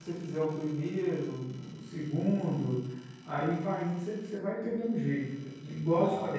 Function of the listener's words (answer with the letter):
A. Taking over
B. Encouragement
B